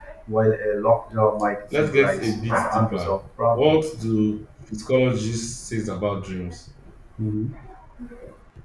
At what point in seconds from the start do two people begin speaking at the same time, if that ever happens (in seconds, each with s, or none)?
1.7 s